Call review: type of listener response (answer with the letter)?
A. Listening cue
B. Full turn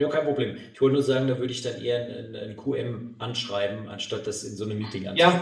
B